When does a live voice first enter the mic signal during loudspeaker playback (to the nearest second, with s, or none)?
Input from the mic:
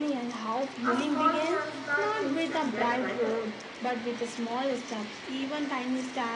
1 s